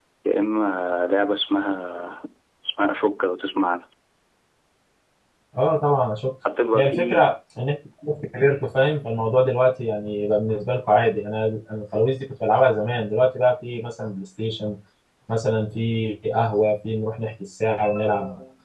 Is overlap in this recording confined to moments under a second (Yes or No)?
Yes